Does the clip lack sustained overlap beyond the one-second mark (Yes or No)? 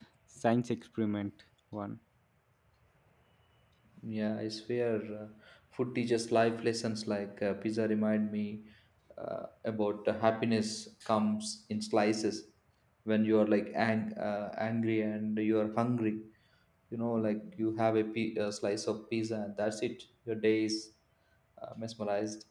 Yes